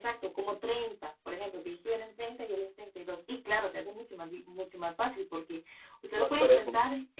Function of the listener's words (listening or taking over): listening